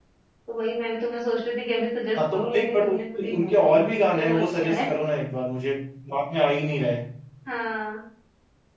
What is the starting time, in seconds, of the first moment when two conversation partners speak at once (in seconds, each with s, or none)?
2.2 s